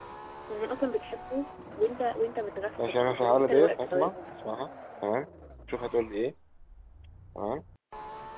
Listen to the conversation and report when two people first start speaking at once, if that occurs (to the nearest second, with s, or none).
3 s